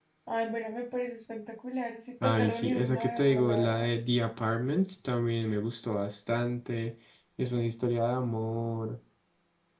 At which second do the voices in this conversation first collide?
2.2 s

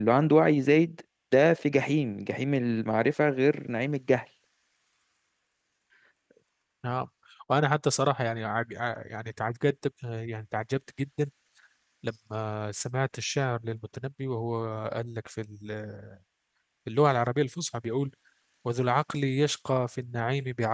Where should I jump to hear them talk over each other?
none

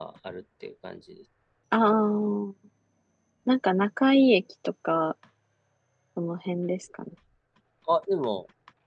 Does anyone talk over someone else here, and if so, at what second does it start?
none

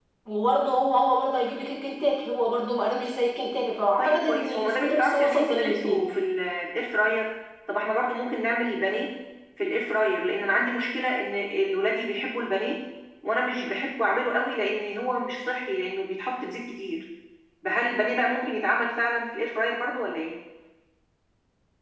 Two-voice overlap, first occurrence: 4.0 s

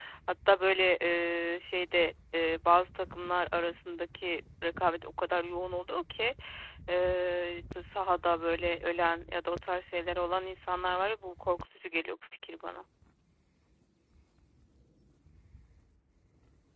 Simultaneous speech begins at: none

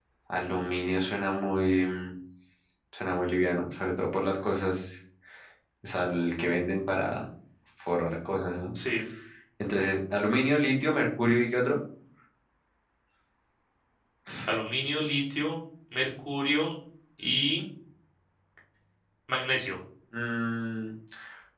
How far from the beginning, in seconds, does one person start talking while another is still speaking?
none

